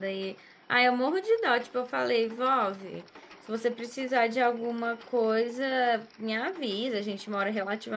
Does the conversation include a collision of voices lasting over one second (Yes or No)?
No